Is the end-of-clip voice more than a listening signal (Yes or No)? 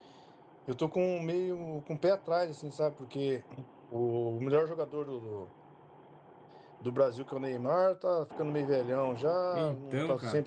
No